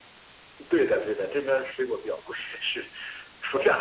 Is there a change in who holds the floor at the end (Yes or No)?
No